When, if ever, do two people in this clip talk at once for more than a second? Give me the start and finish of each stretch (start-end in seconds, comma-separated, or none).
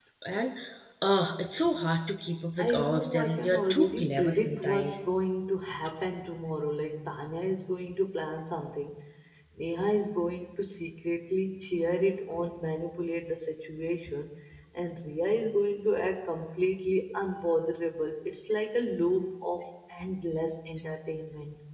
2.6-5.0